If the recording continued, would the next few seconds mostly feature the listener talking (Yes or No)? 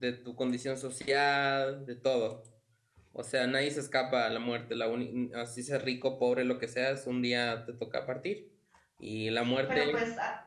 Yes